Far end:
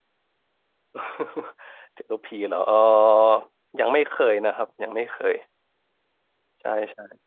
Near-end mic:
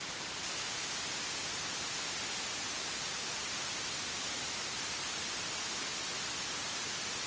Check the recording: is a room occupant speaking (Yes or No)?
No